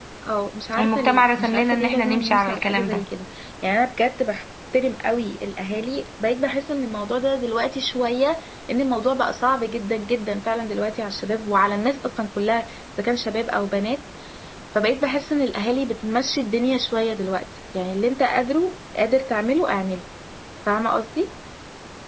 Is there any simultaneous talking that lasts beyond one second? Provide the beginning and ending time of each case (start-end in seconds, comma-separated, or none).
0.8-3.0